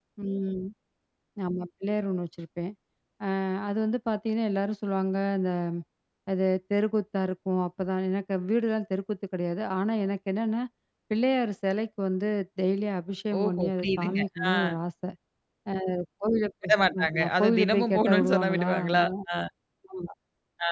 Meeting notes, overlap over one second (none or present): present